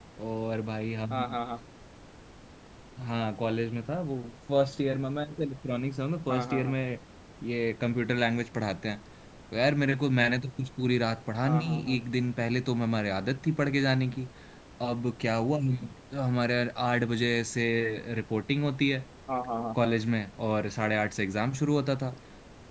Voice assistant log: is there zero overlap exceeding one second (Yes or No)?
Yes